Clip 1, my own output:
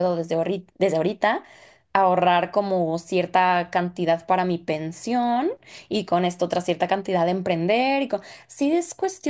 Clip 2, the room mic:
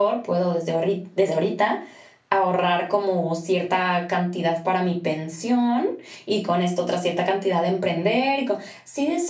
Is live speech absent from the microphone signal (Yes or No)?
Yes